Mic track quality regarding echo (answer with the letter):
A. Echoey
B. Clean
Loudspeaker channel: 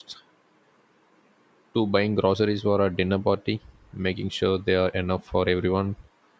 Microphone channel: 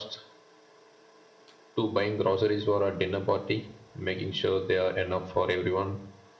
A